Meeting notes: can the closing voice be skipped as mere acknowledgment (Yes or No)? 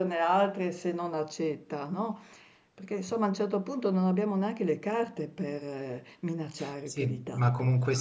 No